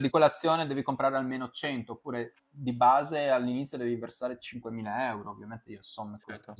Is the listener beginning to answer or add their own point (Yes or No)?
No